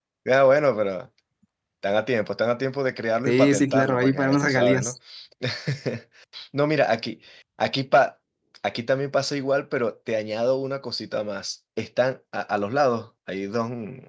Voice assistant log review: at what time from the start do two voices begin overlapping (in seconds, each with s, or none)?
3.3 s